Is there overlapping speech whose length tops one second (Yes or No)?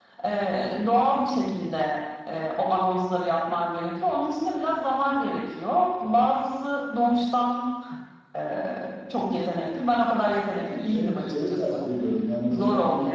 Yes